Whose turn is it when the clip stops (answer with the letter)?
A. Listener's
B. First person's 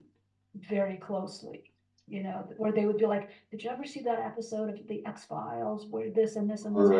B